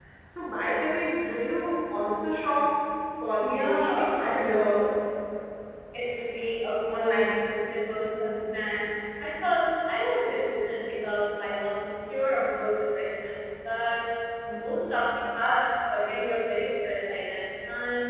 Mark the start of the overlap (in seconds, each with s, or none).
3.4 s